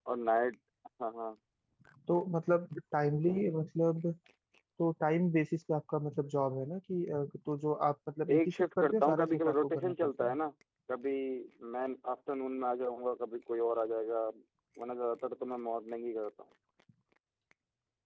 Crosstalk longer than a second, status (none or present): present